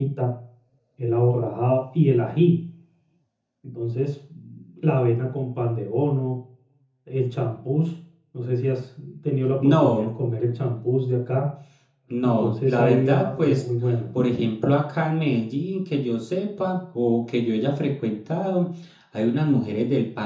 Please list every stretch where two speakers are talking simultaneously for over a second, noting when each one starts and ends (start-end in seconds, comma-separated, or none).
12.2-13.6